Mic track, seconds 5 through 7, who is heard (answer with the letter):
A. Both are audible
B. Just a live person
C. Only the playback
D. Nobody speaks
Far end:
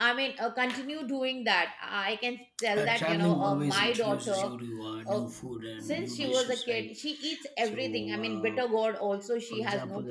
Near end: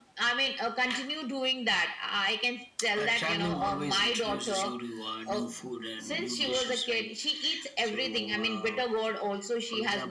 C